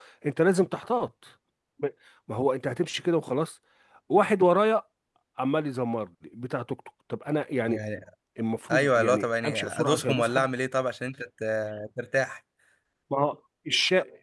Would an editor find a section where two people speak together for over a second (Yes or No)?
Yes